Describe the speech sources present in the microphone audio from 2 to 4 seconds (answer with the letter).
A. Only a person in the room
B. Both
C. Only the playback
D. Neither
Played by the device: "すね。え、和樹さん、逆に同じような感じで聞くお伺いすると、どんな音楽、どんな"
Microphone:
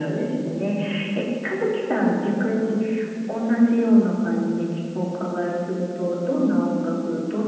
C